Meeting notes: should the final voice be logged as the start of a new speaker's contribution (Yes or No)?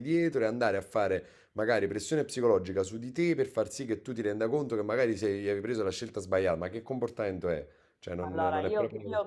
Yes